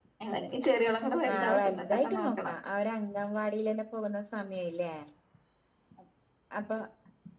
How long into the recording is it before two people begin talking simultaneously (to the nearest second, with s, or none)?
1 s